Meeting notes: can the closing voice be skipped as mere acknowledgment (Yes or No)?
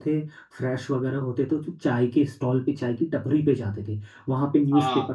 Yes